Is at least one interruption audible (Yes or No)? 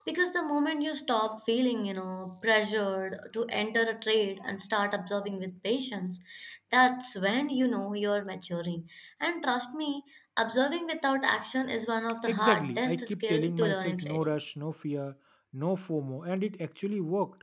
Yes